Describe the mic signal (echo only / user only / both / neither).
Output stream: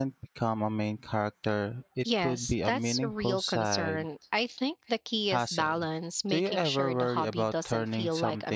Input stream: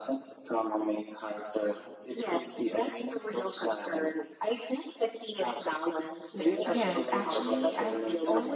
both